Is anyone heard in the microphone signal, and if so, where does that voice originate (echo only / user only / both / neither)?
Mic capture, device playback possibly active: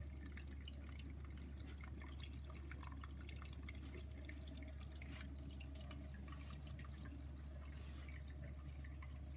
neither